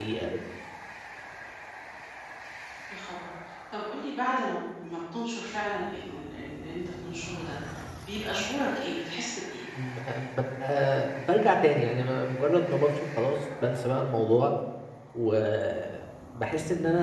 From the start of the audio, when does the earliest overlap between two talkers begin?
none

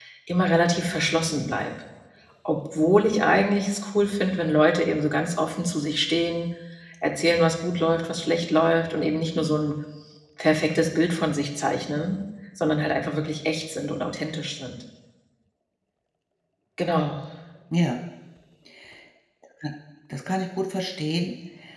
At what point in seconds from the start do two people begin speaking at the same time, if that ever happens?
none

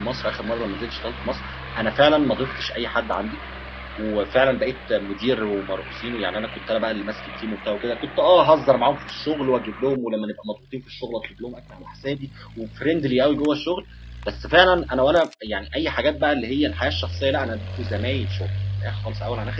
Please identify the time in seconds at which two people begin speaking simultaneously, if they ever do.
none

